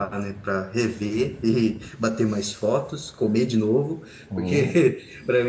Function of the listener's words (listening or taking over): listening